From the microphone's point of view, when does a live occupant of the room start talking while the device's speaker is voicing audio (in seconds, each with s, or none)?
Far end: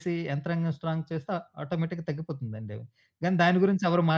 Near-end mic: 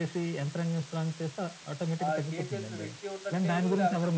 2.0 s